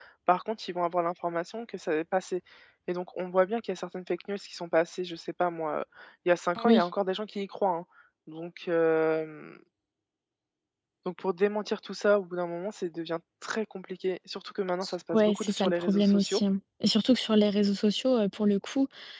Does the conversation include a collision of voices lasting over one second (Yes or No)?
Yes